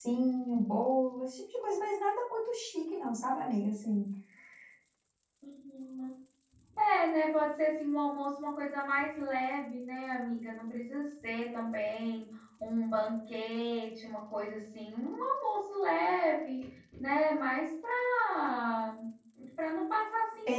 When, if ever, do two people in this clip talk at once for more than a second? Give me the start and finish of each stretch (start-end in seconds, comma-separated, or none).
none